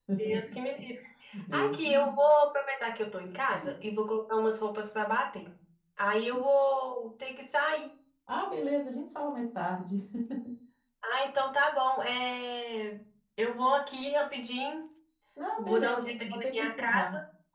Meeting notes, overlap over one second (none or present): present